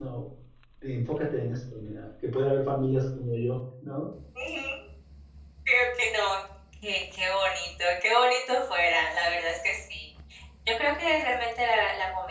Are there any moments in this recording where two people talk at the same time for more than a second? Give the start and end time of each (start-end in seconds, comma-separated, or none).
none